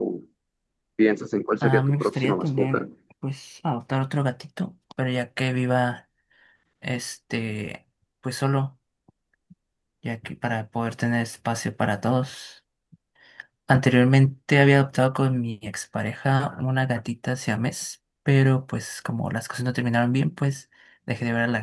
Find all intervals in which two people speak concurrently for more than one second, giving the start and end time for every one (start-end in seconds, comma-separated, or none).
1.6-2.8